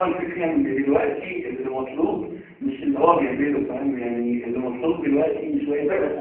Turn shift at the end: No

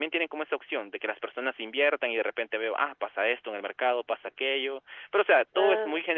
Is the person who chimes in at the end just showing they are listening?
Yes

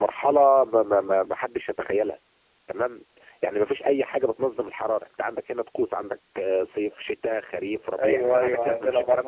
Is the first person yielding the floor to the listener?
Yes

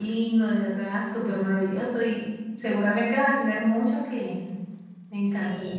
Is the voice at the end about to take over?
Yes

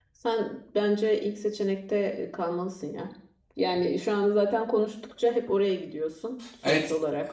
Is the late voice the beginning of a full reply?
Yes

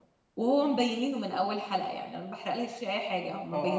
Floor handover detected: Yes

